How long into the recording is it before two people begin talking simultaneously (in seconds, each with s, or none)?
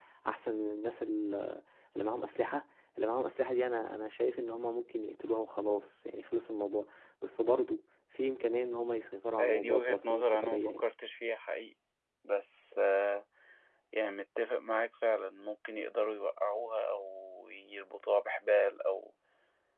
9.4 s